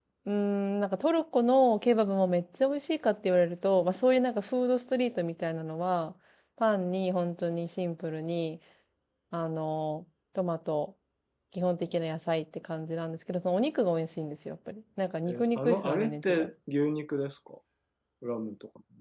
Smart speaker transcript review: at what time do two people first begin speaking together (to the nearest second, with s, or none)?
15 s